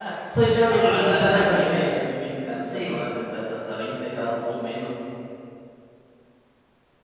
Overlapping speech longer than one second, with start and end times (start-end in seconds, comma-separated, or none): 0.7-2.0